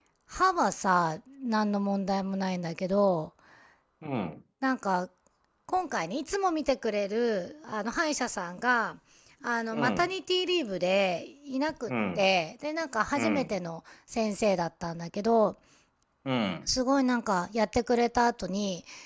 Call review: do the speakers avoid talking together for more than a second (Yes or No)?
Yes